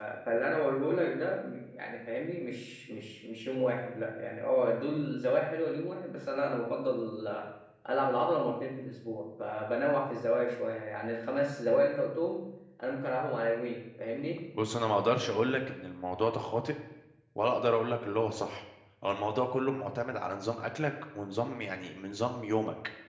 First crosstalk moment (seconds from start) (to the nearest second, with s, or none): none